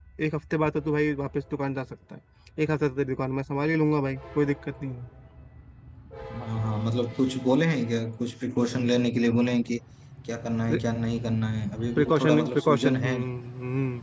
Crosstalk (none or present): present